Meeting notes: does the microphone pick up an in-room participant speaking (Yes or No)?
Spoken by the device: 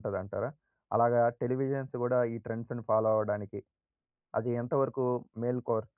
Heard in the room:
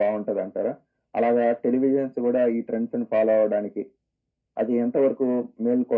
No